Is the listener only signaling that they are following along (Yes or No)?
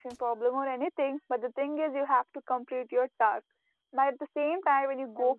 Yes